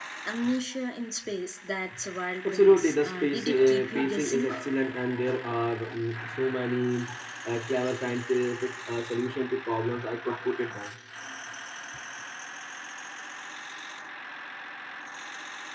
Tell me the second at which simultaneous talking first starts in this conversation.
2.5 s

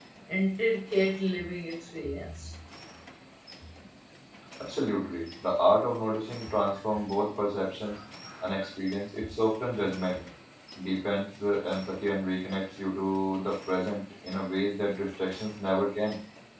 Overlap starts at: none

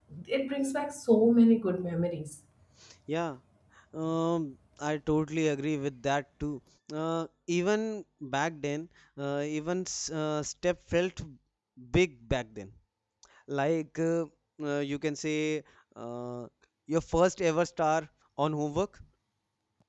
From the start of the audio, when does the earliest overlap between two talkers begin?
none

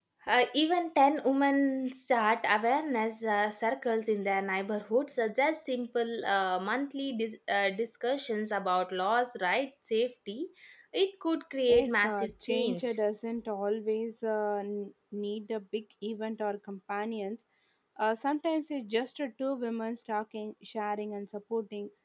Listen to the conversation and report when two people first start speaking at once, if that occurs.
11.7 s

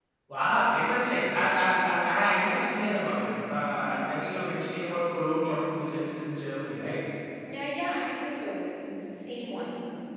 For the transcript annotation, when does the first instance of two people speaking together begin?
none

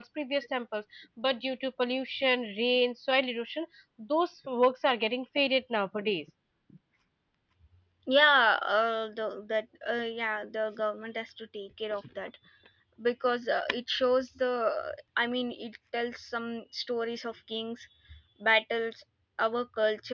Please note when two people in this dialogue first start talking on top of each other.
none

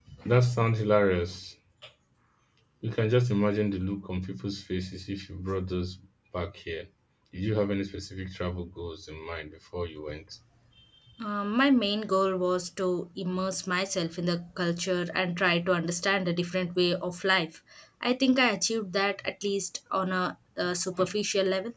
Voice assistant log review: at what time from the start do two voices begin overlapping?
none

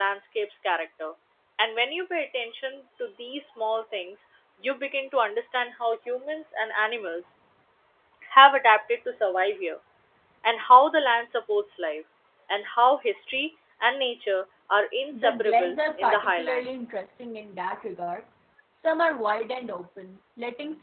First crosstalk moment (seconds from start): 15.1 s

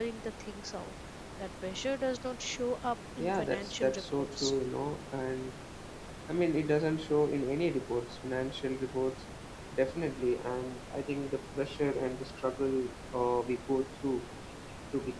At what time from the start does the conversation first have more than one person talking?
3.2 s

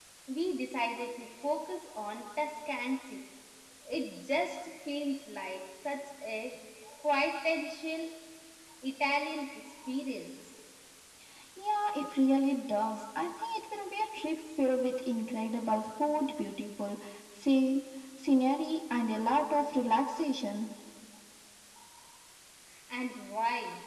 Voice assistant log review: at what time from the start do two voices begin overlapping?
none

